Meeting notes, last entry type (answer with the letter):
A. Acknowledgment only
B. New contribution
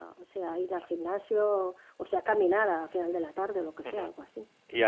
B